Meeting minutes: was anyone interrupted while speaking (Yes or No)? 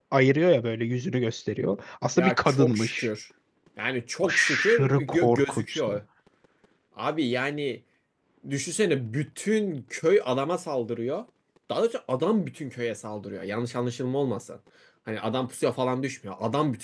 Yes